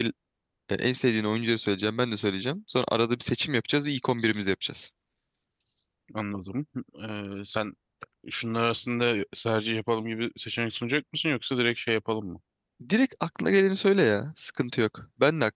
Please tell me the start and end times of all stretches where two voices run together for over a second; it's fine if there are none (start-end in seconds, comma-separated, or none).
none